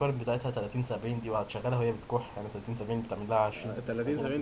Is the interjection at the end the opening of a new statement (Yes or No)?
Yes